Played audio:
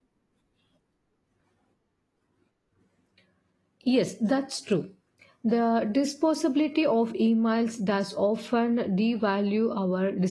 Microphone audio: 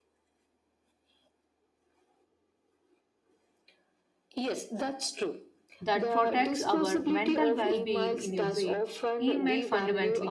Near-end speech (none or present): present